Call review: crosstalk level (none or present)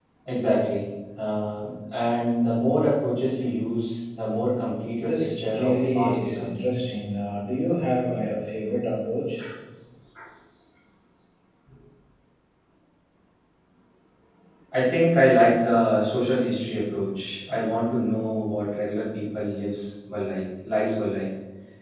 present